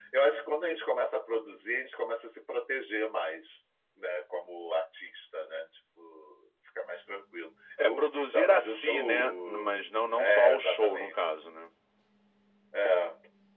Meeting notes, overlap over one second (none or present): present